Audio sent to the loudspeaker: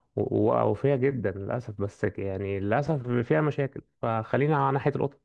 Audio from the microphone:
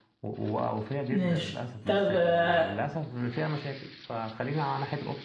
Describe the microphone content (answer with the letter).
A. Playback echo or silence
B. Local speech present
B